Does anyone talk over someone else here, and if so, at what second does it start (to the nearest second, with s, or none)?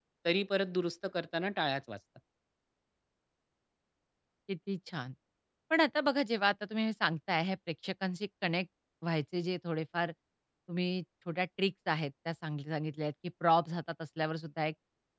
none